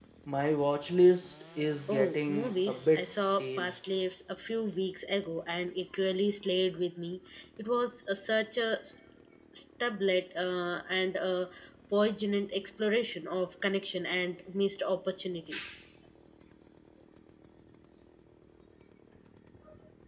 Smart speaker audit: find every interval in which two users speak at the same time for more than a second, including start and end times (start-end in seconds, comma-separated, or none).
1.9-3.7